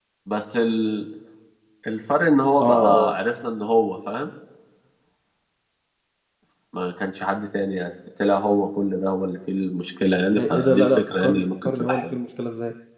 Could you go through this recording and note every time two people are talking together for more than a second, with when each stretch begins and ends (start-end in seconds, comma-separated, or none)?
10.4-12.2